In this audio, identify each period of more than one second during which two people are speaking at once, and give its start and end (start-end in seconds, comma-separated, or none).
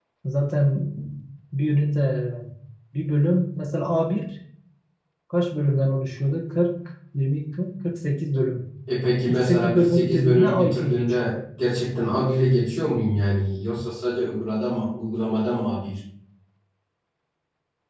9.3-11.3